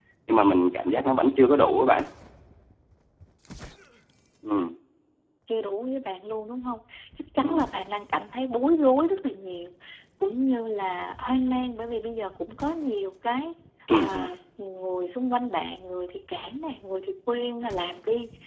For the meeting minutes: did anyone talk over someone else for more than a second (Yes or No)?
No